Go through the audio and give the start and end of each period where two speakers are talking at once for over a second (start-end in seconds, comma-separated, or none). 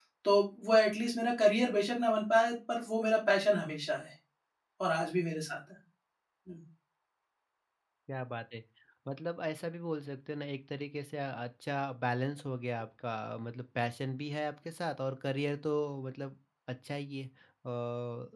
none